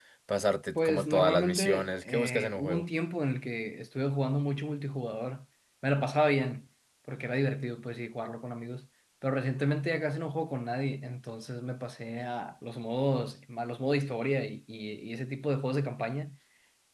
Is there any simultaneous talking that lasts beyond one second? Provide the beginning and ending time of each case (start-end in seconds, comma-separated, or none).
0.8-2.8